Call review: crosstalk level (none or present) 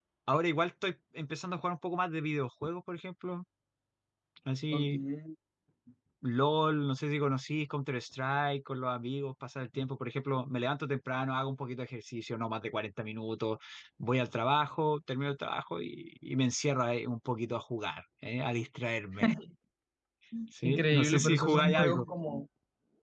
present